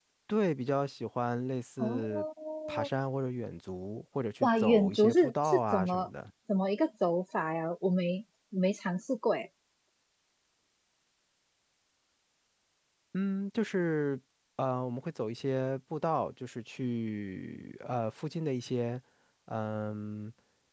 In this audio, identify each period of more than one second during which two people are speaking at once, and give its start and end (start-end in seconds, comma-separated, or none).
4.4-6.1